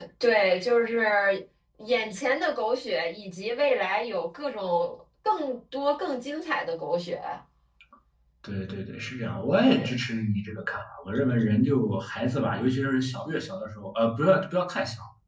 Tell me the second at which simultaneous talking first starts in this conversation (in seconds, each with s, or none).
none